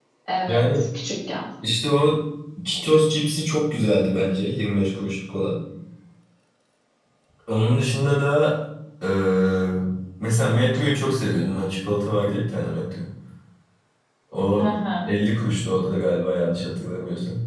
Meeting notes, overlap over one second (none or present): none